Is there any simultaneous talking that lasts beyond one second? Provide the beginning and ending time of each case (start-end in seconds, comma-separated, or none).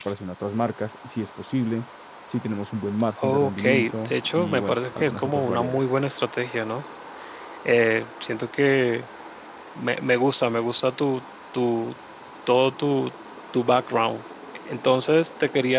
3.2-5.8